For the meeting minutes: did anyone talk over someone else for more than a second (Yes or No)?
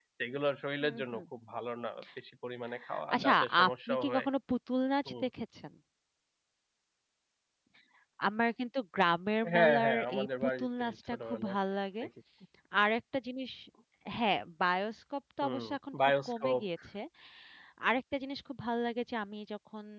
Yes